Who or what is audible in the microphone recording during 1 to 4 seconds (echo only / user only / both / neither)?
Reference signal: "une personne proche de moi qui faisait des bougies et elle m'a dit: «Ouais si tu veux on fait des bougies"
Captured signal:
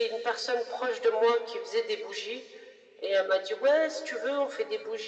echo only